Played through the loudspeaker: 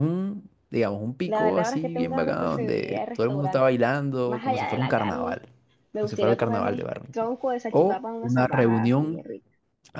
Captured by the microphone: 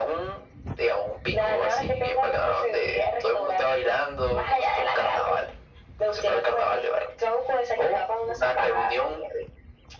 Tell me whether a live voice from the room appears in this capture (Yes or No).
No